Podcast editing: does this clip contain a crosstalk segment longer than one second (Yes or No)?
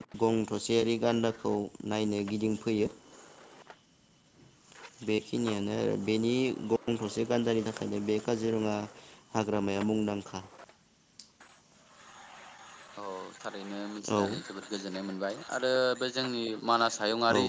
No